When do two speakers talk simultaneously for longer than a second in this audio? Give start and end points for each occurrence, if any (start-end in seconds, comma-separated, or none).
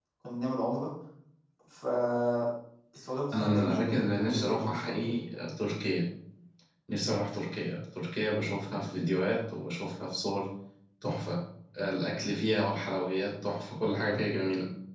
3.3-5.2